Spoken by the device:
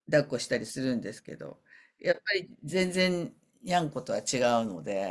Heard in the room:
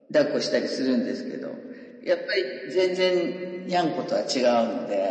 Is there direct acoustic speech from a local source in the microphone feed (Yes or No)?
No